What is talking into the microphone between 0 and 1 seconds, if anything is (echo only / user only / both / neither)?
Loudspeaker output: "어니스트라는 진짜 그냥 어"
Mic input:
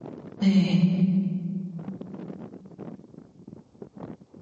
user only